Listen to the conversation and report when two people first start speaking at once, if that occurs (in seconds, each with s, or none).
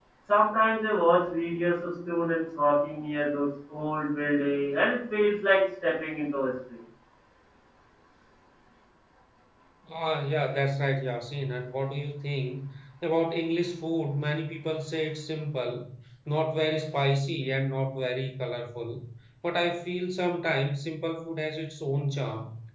none